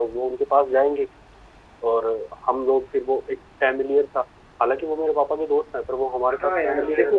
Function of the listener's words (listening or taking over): taking over